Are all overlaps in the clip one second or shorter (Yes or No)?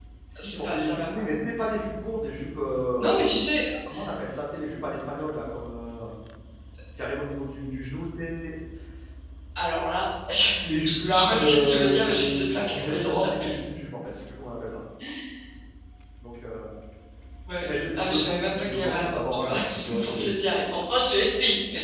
No